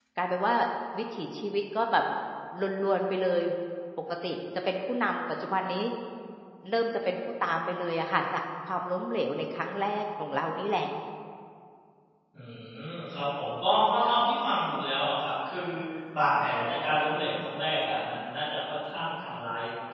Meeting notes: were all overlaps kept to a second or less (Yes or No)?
Yes